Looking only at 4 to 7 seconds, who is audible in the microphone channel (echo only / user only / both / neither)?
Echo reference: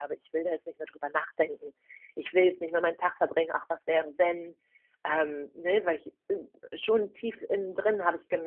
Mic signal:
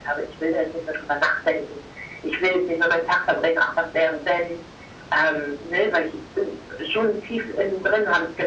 echo only